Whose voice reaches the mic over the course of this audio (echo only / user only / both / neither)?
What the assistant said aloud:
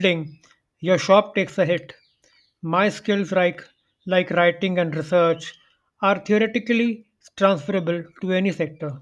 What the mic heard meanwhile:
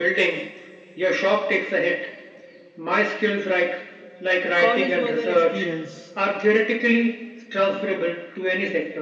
both